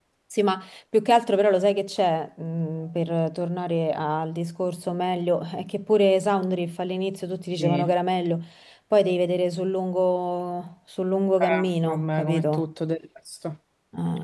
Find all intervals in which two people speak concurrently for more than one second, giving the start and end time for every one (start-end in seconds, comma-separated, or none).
11.4-12.7